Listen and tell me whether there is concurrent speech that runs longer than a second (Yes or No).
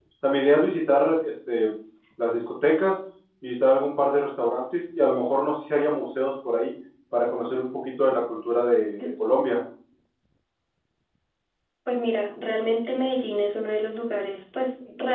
No